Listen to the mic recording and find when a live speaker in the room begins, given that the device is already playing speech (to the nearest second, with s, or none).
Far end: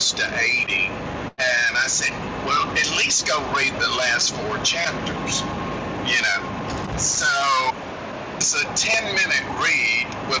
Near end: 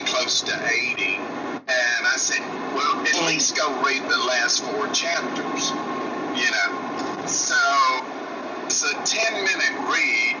3 s